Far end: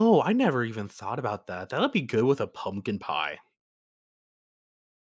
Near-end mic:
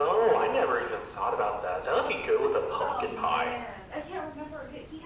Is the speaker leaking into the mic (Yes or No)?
Yes